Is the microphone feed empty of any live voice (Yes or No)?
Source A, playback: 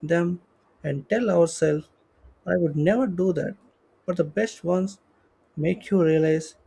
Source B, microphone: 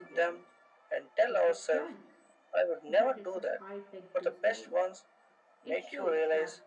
No